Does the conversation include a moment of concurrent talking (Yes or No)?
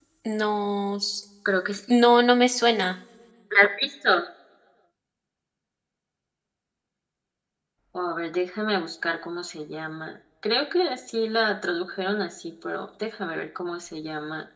No